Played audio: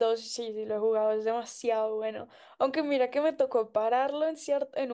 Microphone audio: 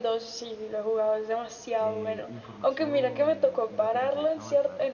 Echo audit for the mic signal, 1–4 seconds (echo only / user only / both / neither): both